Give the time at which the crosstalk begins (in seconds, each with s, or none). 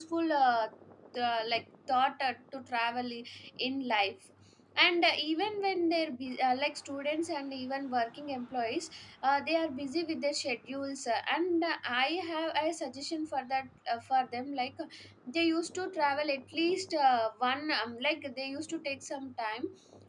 none